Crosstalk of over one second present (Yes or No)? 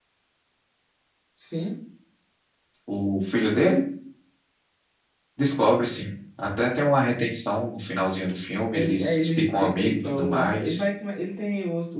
Yes